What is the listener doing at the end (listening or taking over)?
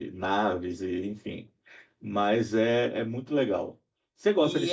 taking over